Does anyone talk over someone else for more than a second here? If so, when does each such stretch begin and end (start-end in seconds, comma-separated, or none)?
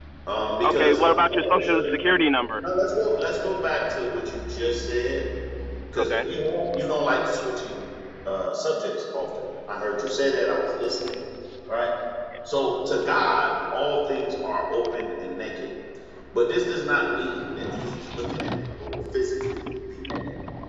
0.6-2.0